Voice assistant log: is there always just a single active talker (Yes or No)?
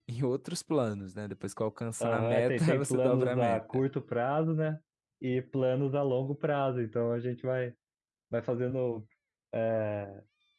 No